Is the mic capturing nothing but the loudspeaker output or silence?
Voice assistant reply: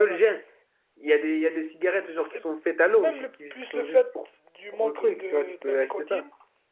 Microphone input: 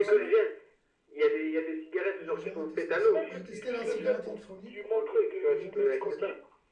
No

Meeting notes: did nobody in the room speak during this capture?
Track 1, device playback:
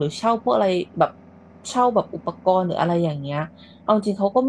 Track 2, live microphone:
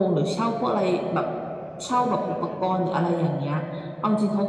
No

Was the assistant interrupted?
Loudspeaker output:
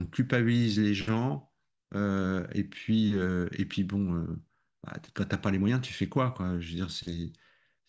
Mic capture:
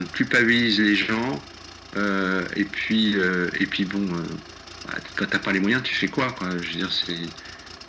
No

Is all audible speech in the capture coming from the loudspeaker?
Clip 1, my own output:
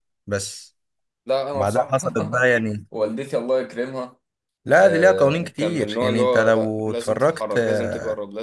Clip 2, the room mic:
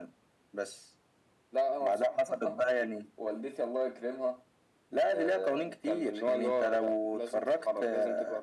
Yes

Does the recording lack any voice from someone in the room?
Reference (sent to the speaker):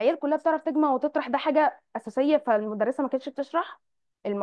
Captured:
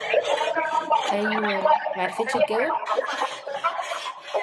No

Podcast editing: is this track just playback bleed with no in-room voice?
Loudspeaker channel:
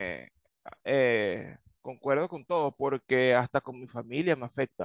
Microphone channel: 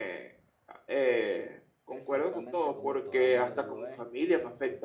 No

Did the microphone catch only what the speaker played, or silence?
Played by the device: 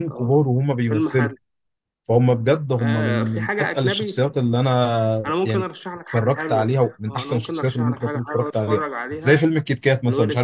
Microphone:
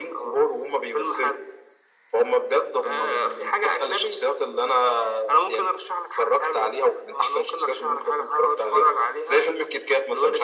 Yes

